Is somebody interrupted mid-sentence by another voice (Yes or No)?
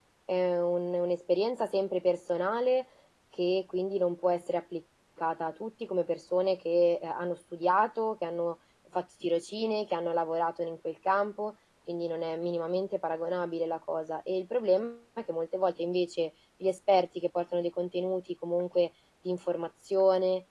No